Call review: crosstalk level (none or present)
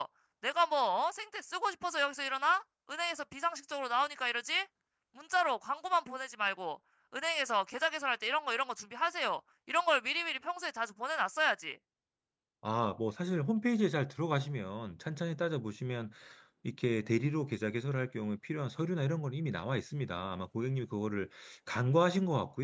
none